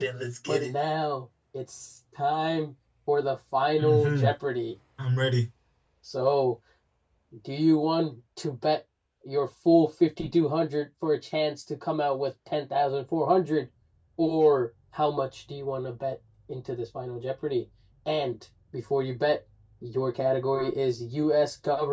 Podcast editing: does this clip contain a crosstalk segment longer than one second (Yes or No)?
No